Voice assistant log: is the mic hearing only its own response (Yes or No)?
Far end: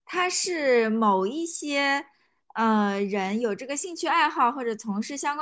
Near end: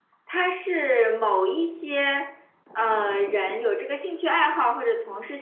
Yes